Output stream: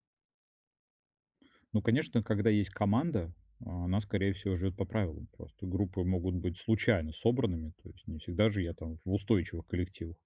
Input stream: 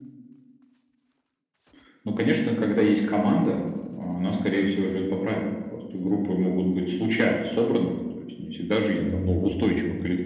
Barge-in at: 9.0 s

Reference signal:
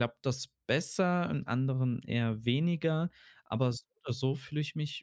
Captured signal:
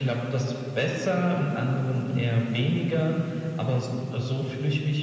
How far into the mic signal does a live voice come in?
none

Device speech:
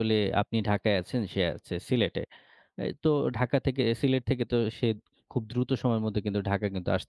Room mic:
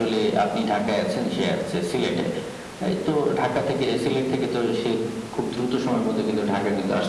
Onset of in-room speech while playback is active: none

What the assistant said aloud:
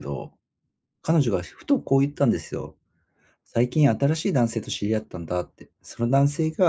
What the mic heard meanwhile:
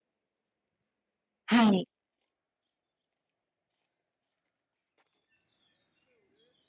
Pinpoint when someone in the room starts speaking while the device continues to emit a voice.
1.5 s

